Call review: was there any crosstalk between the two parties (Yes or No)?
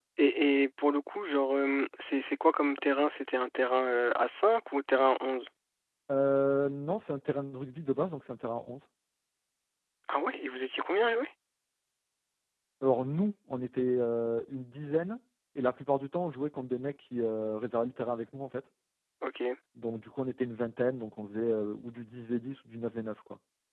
No